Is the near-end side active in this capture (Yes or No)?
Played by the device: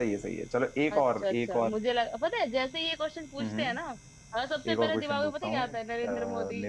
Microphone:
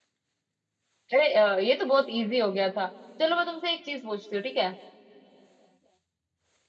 Yes